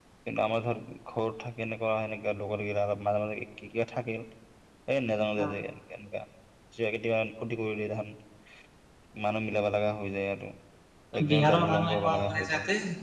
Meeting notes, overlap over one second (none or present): present